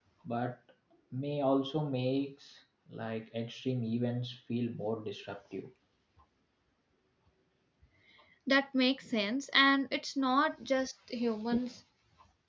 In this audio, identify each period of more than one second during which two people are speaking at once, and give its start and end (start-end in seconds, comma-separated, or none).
none